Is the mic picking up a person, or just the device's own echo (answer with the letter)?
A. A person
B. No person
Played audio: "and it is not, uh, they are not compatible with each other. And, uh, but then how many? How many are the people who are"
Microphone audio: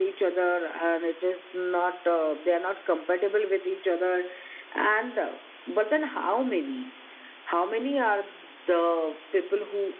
B